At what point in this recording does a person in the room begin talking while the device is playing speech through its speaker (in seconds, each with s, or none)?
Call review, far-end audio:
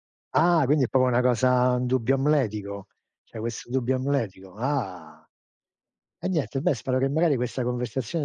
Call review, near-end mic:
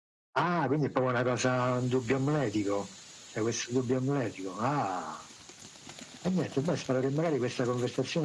none